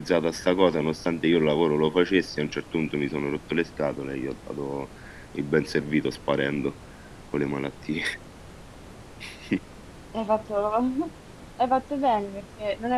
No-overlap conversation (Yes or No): Yes